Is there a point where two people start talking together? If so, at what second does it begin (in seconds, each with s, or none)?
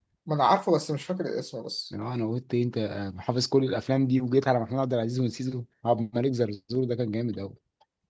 none